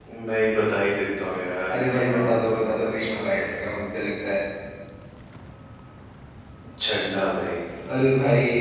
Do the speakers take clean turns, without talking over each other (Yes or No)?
No